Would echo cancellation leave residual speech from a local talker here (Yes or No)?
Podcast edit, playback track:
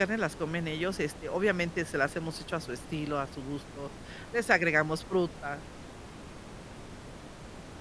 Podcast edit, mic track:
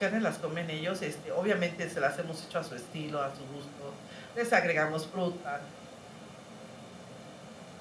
No